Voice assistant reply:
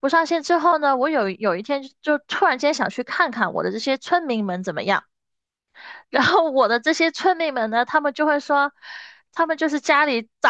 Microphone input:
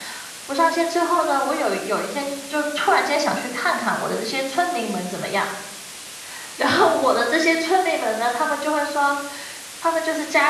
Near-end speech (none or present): none